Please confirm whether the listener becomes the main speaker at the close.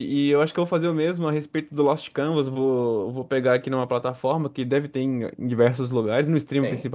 No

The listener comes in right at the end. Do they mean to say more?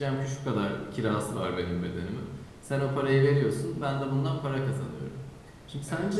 No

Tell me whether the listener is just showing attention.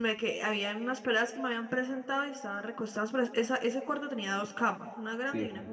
Yes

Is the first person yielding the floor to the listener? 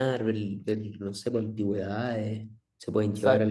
No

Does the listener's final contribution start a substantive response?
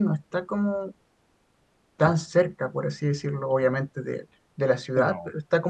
No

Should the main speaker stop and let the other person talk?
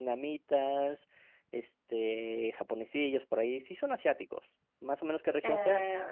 Yes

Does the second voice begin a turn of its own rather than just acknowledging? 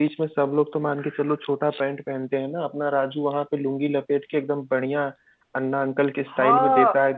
Yes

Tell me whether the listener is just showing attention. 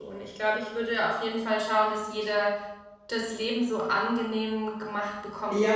No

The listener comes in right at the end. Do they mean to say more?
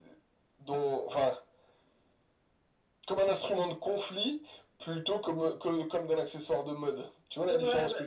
Yes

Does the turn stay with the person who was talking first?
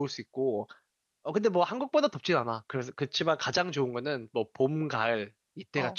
No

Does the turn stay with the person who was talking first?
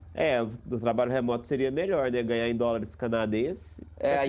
No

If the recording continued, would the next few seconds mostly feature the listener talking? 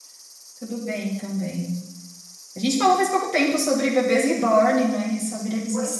Yes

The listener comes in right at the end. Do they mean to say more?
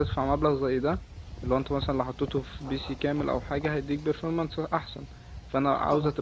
No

